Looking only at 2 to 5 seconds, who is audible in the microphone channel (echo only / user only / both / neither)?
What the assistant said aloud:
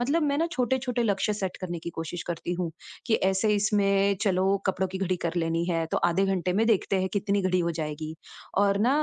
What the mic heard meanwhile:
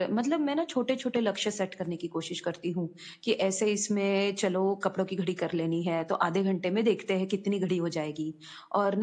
echo only